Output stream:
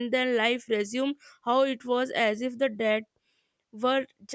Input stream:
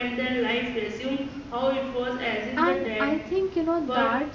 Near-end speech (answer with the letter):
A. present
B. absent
A